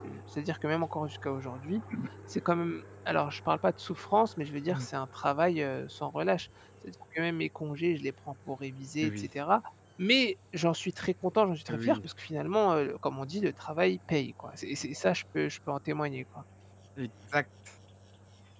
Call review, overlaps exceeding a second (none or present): none